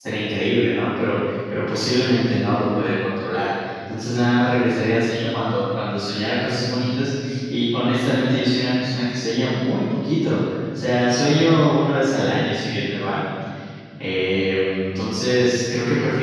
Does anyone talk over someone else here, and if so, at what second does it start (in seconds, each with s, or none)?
none